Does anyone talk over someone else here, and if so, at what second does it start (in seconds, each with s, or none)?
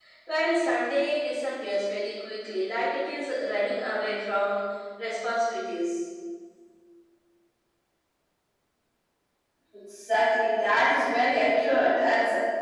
none